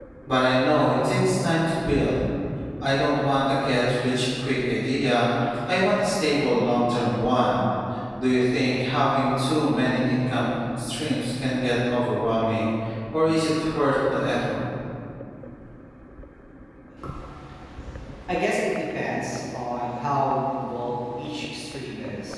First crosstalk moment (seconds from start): none

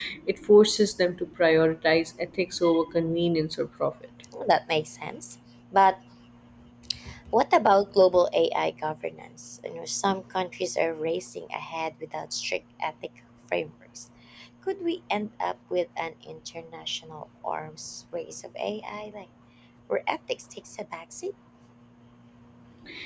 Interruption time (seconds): none

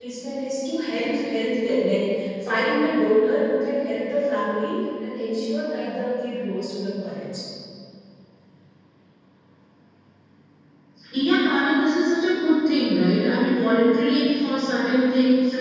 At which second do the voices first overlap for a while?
none

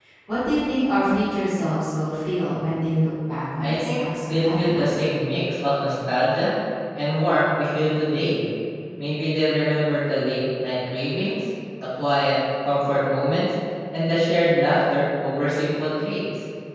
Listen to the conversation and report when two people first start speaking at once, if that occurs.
3.6 s

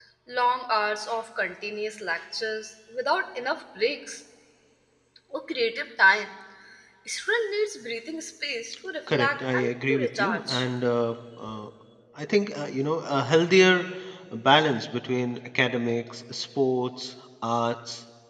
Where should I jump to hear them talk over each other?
9.1 s

